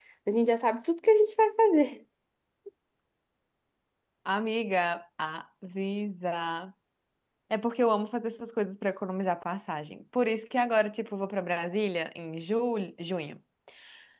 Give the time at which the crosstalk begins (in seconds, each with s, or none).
none